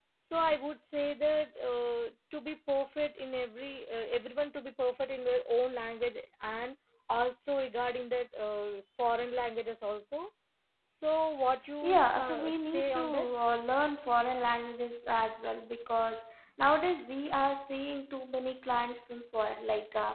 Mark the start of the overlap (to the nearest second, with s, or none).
12 s